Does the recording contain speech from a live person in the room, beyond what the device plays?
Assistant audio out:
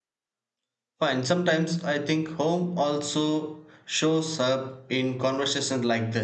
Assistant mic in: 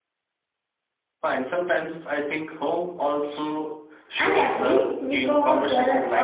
Yes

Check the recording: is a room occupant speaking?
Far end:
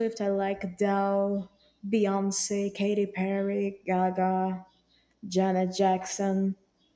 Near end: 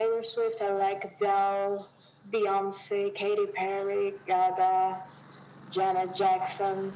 No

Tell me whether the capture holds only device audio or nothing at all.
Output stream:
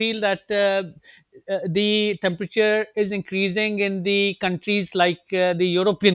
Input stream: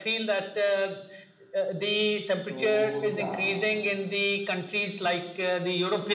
No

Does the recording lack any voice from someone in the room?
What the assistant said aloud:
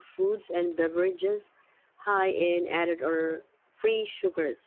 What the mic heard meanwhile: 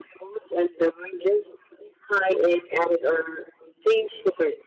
Yes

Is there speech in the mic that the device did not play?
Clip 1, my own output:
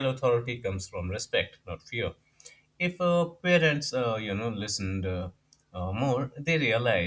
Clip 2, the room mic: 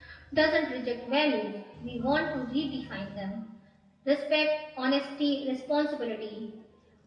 Yes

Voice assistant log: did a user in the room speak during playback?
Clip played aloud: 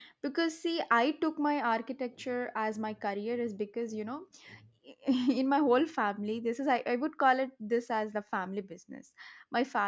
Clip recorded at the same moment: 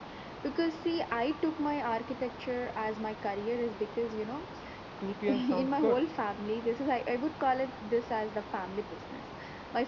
Yes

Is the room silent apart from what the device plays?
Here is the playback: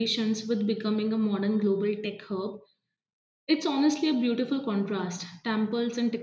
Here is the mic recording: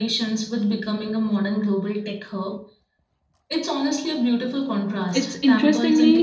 No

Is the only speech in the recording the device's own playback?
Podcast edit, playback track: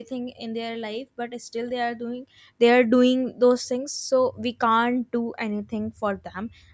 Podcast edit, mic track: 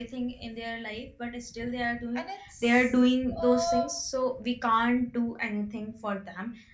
No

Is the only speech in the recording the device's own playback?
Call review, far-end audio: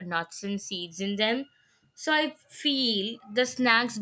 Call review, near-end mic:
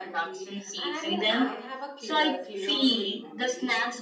No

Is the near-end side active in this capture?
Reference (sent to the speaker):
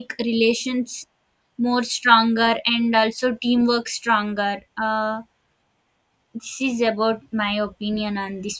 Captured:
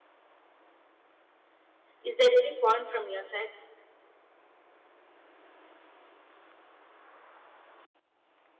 Yes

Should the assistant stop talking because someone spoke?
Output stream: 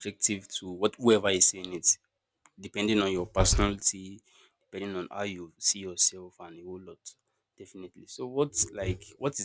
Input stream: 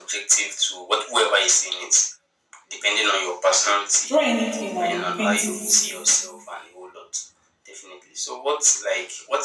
Yes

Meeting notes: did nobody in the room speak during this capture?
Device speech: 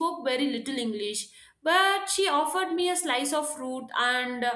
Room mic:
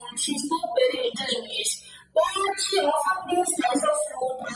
Yes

